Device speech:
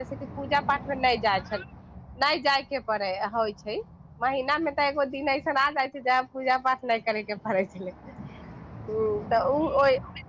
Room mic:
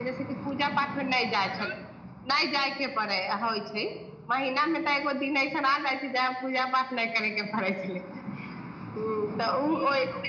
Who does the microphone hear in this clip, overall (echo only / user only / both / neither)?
echo only